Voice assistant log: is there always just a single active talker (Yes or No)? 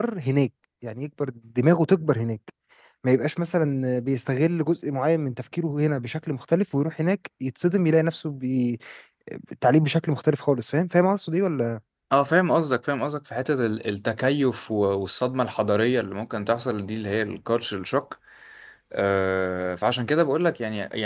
Yes